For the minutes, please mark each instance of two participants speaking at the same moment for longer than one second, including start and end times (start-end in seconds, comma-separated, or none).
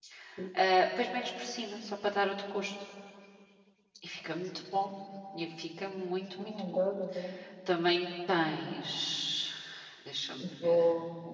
none